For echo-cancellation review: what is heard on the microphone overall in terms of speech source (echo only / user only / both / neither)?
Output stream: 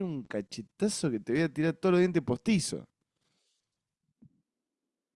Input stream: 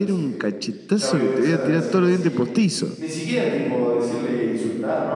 both